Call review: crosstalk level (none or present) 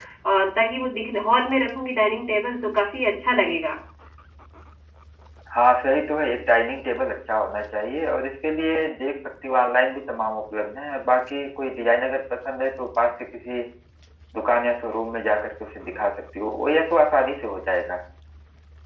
none